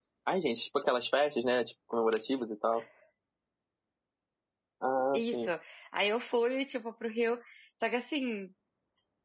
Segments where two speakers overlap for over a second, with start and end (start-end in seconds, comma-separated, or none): none